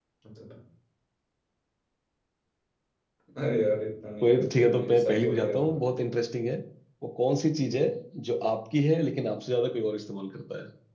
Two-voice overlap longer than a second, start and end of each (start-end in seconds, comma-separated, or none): 4.2-5.8